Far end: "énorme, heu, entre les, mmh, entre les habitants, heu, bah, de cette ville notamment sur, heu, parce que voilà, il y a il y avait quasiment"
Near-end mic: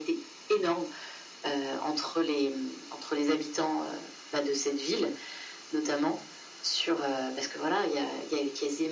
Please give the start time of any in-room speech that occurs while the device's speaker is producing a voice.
none

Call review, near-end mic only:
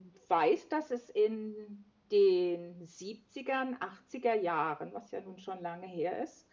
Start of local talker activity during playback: none

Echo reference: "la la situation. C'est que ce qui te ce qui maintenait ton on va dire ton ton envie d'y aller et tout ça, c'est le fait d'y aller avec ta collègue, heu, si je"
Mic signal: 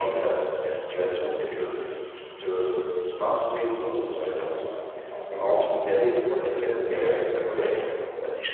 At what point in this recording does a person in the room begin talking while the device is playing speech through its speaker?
none

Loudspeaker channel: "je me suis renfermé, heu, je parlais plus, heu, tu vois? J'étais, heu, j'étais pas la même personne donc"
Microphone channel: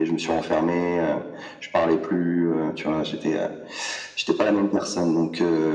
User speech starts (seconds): none

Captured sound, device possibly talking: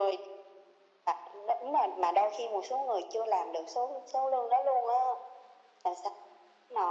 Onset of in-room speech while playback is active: none

